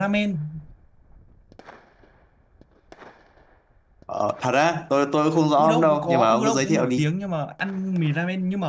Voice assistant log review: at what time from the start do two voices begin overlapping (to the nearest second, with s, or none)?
6 s